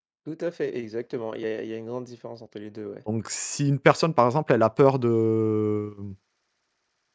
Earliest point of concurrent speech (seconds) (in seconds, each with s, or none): none